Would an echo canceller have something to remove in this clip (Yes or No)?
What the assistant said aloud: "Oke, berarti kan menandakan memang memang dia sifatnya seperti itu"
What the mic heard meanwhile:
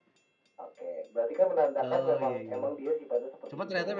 Yes